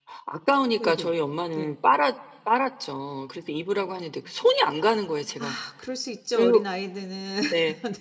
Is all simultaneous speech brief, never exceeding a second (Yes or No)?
Yes